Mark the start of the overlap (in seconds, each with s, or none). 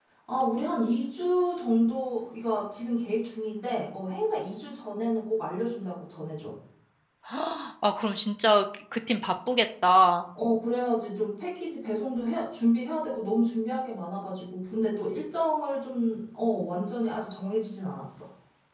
none